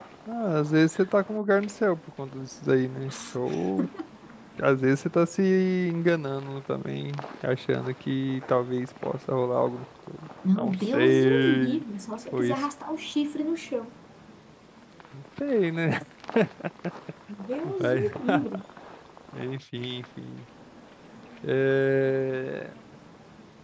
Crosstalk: present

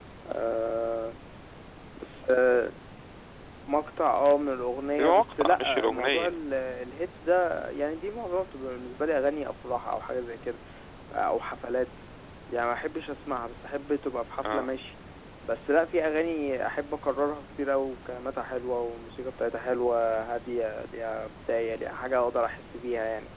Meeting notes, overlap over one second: present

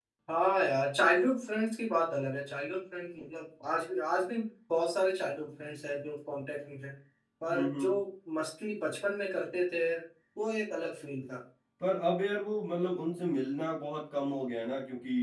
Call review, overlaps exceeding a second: none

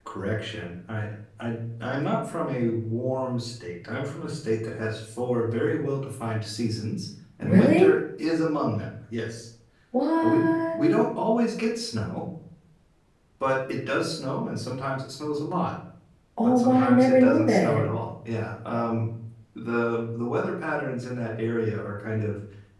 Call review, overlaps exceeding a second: present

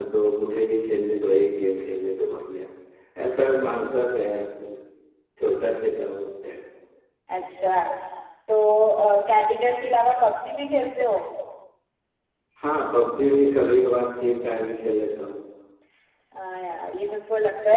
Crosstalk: none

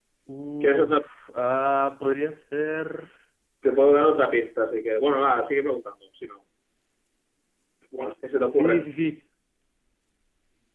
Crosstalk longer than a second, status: none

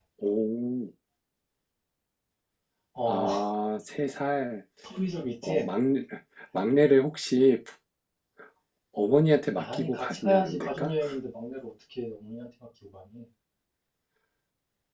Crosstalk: present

